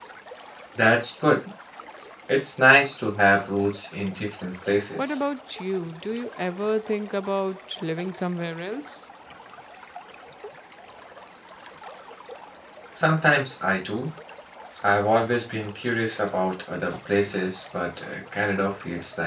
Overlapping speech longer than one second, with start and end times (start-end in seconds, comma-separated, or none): none